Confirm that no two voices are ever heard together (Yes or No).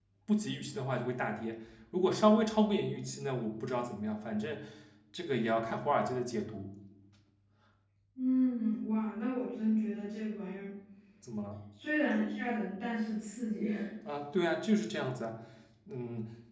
Yes